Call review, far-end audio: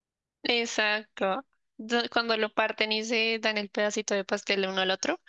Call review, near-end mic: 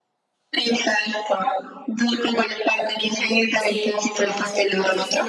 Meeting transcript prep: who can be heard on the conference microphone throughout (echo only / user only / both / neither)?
both